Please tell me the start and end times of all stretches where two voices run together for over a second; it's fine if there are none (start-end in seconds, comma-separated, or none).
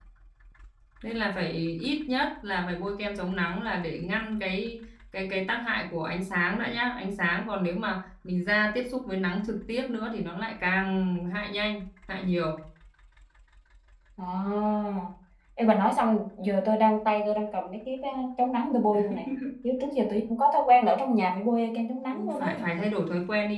none